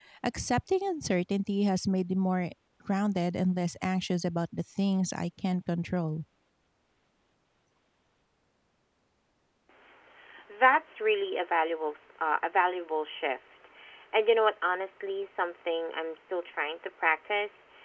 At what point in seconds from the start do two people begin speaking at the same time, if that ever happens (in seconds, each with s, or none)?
none